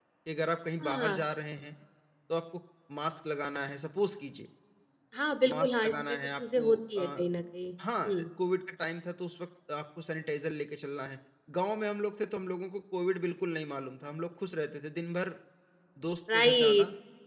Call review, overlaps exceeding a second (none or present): present